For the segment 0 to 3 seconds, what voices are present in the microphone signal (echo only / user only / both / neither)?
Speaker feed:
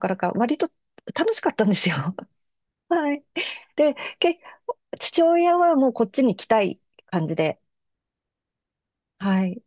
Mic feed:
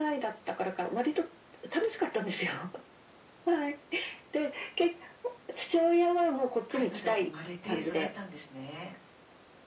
echo only